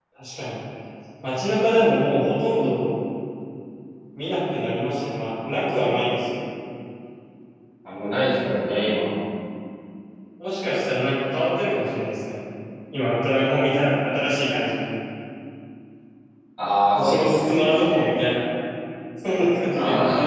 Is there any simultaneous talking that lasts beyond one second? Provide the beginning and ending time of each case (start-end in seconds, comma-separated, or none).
16.9-18.2